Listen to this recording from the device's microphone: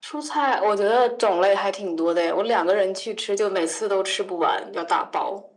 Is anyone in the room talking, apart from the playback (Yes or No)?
No